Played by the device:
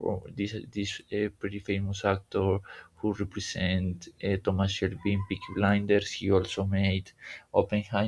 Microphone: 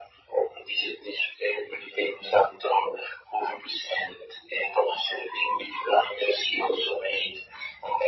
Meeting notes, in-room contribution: none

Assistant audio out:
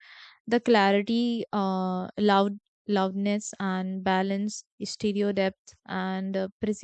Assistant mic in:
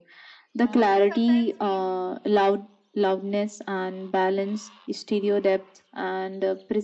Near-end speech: present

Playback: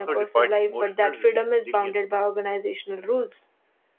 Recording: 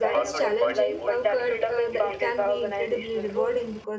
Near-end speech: present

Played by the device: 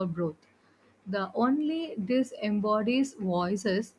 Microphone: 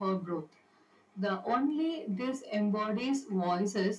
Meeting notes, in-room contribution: none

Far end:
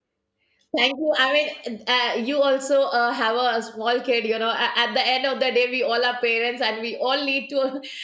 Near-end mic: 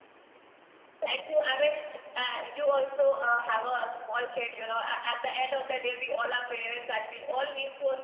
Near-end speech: none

